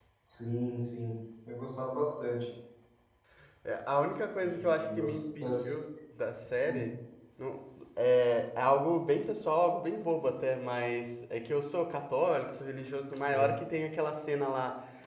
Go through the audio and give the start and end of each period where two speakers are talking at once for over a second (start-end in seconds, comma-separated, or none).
4.4-5.7